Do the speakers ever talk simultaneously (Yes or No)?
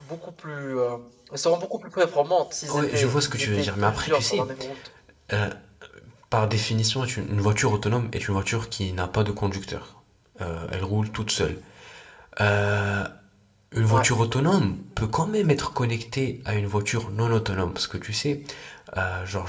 Yes